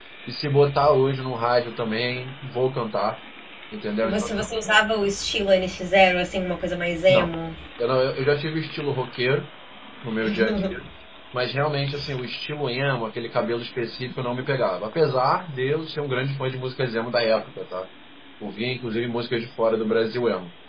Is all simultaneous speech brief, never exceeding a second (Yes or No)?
Yes